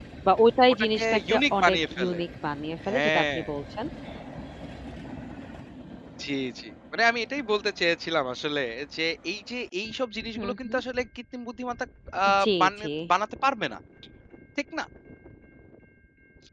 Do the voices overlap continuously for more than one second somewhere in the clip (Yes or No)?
Yes